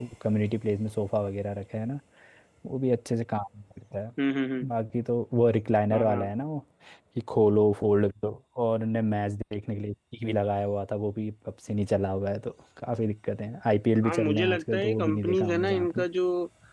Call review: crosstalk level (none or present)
present